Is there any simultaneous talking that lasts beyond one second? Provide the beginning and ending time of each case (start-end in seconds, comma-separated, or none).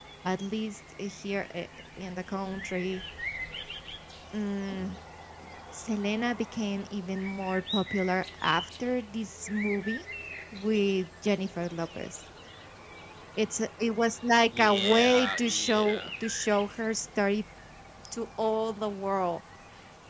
14.5-16.1